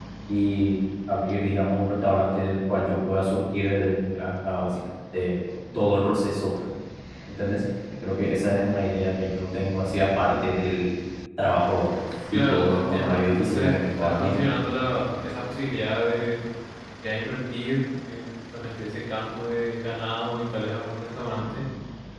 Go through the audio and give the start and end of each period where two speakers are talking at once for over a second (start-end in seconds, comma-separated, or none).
12.3-14.4